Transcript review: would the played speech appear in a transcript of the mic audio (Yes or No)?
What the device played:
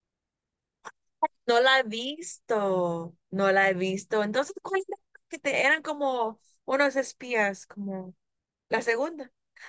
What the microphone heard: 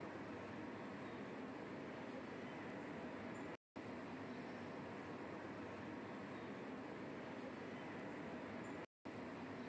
No